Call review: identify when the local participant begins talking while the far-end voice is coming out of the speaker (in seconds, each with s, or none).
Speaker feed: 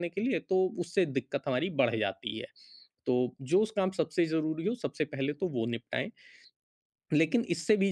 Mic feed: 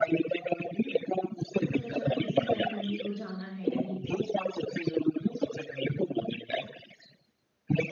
1.6 s